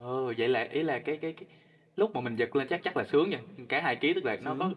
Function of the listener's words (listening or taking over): listening